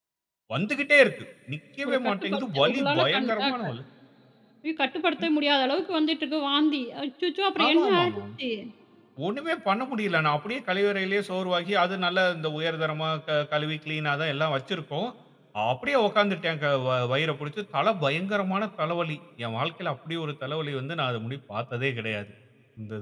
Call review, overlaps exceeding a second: present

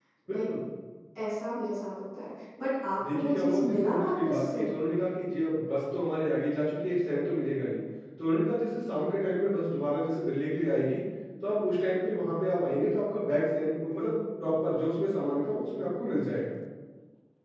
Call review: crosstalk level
present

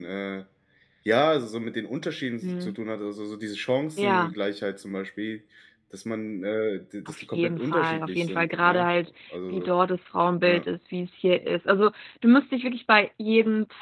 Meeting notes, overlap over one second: present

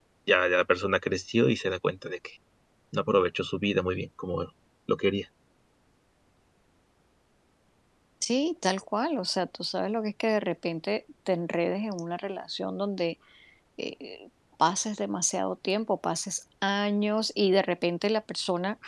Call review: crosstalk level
none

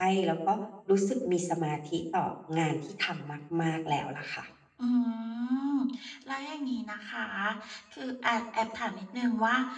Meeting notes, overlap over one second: none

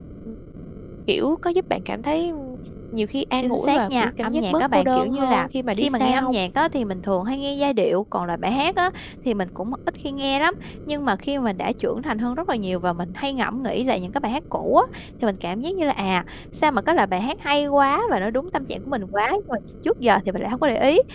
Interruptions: present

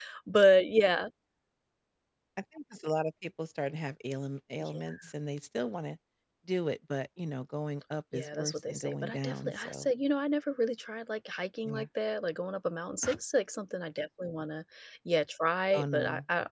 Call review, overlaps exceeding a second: present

